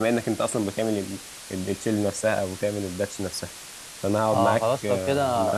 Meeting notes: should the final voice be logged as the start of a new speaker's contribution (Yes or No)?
Yes